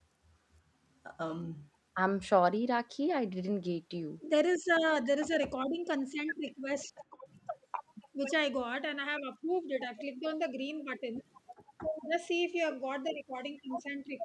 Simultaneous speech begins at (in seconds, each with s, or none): none